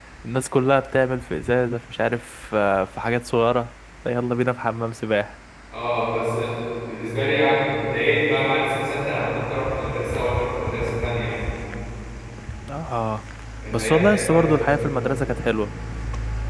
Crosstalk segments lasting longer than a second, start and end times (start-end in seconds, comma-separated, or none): 13.7-14.9